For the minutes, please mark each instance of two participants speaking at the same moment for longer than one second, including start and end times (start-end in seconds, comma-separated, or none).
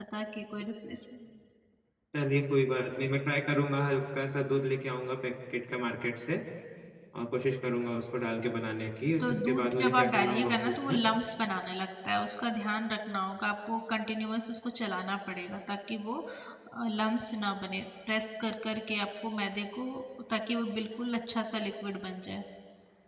9.2-11.0